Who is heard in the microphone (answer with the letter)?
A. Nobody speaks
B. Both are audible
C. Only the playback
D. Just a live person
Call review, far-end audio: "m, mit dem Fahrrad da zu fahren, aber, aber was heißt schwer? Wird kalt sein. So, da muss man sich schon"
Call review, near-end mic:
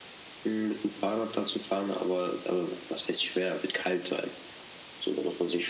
C